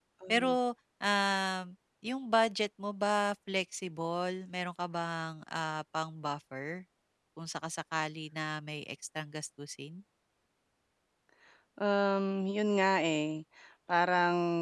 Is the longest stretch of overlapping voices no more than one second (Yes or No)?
Yes